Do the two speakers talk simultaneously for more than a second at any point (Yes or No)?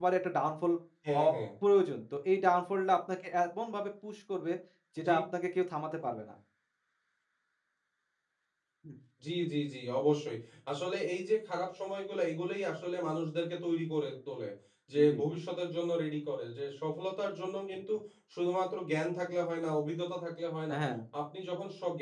No